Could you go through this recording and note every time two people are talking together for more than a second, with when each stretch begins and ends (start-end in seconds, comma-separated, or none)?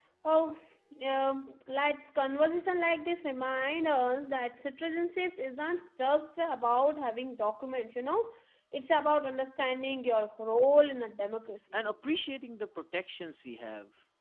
none